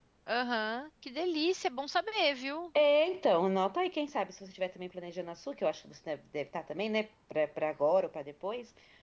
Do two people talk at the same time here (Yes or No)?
No